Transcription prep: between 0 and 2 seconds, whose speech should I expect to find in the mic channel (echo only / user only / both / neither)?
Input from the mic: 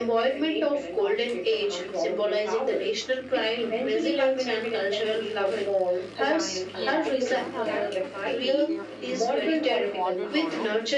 echo only